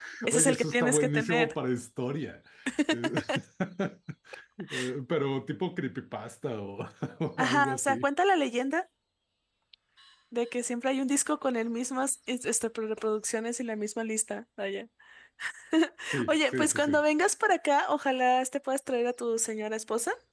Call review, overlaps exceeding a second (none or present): present